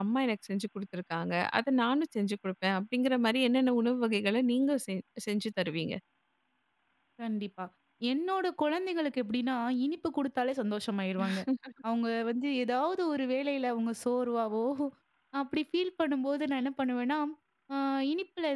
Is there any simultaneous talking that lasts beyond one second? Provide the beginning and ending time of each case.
none

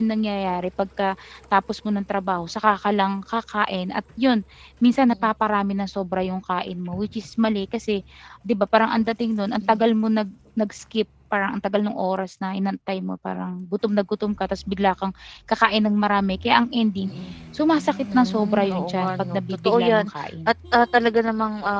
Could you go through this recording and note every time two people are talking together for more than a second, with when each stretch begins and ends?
18.1-20.5

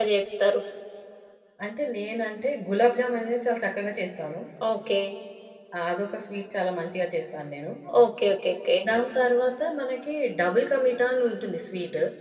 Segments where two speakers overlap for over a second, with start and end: none

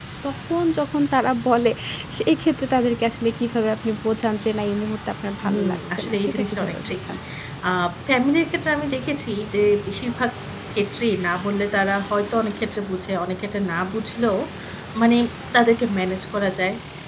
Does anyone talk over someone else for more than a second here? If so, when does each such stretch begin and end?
5.5-7.2

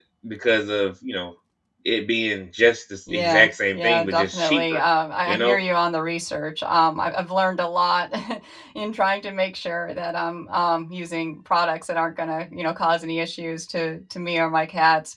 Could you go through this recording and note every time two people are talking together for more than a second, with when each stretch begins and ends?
3.1-4.8

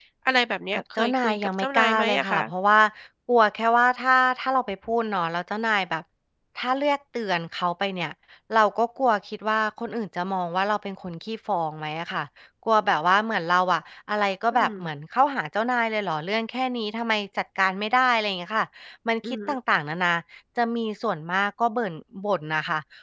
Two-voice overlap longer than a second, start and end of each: 0.7-2.4

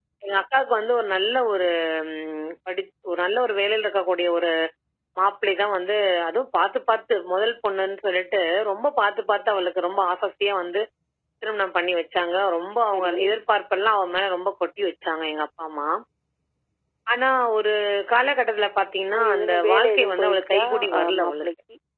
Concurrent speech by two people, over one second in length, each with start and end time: 19.1-21.5

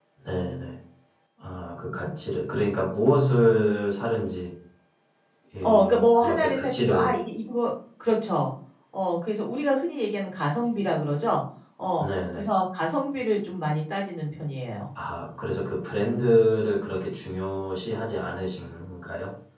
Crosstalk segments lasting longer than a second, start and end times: 5.6-7.2

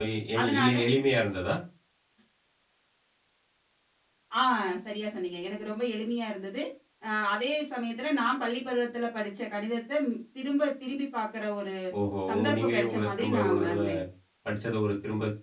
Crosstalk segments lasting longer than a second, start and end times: 12.3-13.8

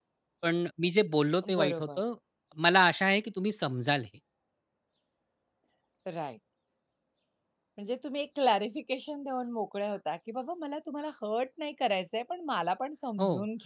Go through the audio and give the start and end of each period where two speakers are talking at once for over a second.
none

